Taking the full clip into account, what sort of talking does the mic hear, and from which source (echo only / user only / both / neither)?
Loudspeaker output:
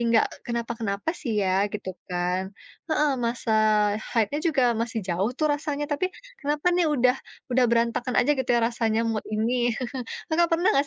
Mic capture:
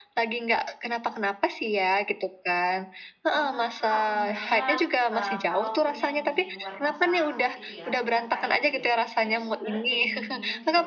both